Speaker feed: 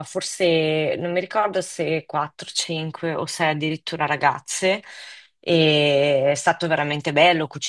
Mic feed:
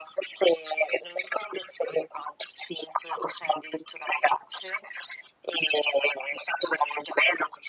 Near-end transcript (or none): none